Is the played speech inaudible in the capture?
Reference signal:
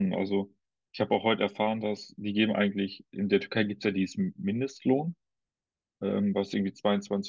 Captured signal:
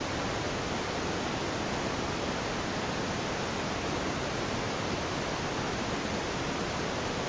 Yes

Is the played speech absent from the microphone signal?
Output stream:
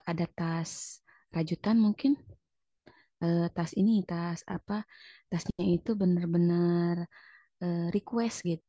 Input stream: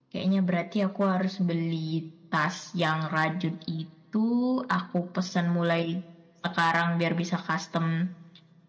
Yes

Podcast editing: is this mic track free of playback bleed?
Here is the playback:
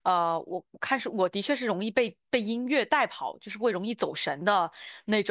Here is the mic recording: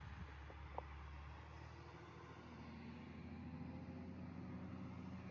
Yes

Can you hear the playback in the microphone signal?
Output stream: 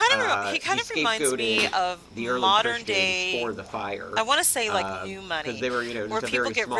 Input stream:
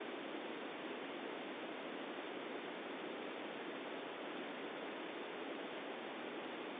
No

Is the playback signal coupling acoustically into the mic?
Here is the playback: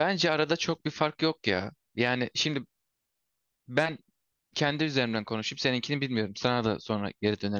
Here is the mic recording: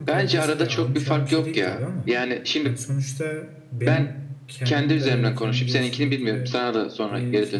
Yes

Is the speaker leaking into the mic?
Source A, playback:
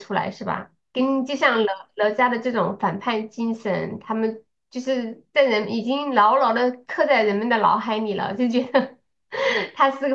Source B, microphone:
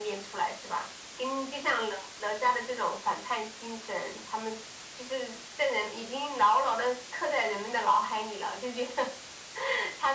Yes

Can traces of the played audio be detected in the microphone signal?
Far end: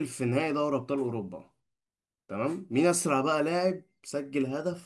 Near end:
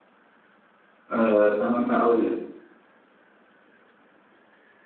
No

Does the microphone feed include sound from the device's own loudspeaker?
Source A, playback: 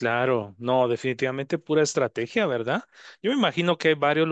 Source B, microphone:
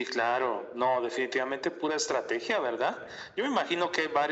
Yes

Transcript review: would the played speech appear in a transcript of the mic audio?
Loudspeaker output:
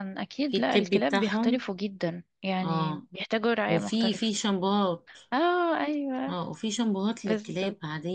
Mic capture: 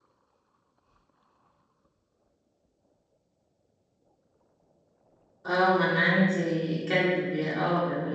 No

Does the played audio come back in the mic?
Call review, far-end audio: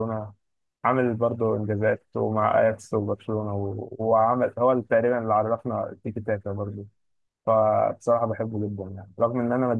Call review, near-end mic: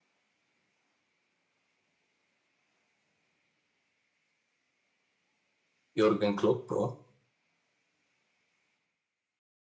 No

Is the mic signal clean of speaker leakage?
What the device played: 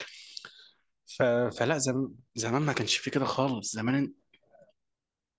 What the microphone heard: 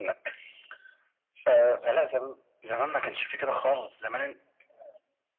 No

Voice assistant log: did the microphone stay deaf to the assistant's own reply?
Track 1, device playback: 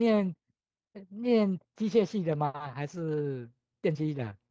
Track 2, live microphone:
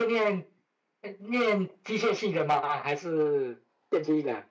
No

